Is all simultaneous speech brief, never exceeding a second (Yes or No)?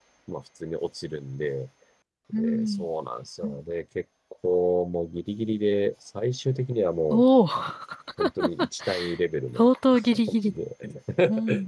Yes